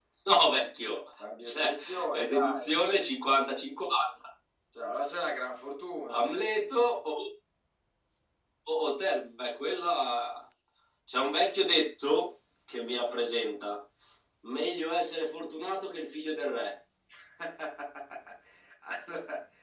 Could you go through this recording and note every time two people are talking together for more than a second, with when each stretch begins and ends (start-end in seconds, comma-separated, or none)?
1.4-2.7